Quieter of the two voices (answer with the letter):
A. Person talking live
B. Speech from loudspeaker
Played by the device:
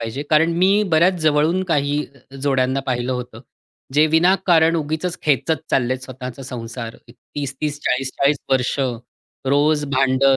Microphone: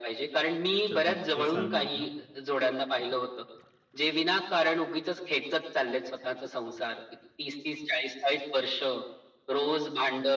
A